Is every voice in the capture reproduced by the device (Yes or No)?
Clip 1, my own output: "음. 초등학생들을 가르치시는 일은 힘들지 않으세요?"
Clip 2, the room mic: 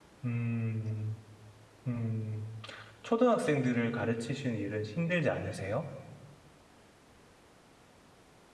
Yes